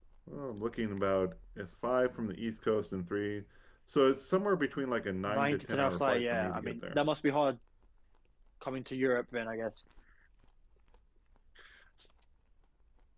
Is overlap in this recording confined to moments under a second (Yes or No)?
No